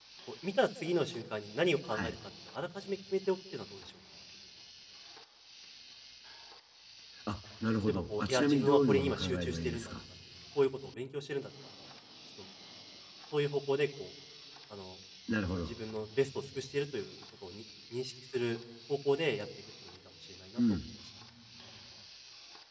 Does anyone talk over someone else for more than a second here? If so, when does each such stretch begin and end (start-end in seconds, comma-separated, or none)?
7.8-9.9